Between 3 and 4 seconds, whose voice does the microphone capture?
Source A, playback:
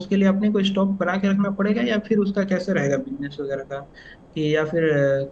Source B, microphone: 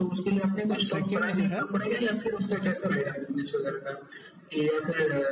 echo only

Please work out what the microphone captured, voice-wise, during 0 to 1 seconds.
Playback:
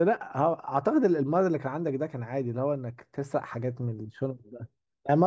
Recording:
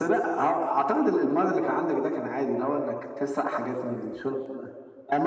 echo only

